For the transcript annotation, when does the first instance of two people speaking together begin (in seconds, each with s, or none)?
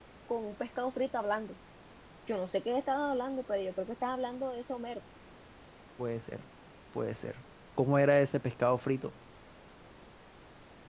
none